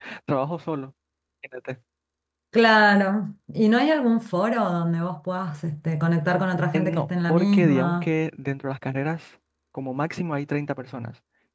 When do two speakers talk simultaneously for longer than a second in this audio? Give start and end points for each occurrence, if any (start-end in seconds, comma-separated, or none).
6.7-8.1